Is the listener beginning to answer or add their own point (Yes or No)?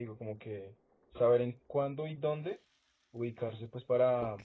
Yes